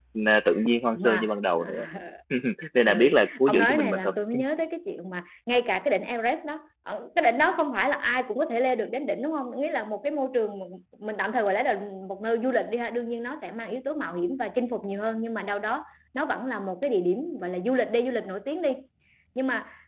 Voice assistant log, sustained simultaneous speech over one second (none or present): present